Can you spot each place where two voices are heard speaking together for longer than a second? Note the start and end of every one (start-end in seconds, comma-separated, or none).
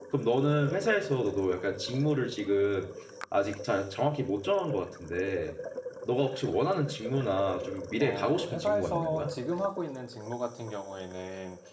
8.0-9.3